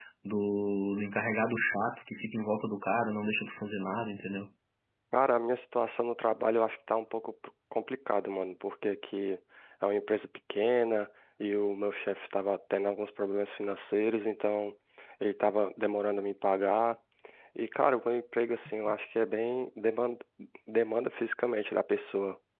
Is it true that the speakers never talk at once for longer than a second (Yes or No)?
Yes